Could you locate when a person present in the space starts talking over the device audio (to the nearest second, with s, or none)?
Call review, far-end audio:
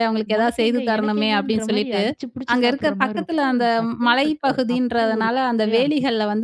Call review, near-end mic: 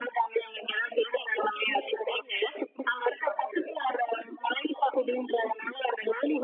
none